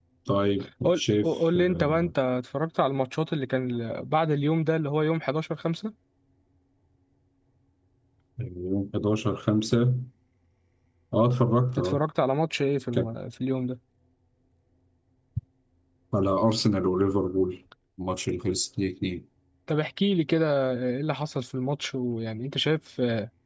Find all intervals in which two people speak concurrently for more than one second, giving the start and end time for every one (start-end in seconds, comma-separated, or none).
0.8-2.1